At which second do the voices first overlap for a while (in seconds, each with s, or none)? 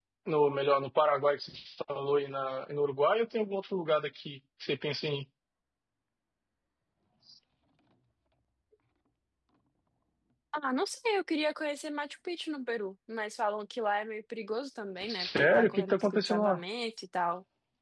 15.0 s